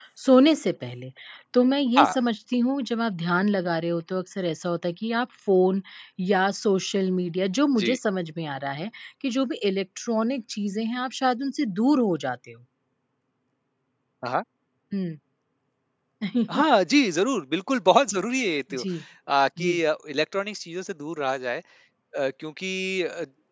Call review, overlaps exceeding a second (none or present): none